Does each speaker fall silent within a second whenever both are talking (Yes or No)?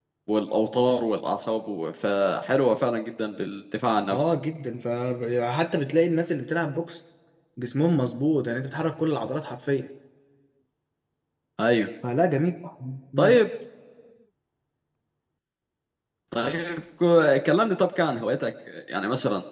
Yes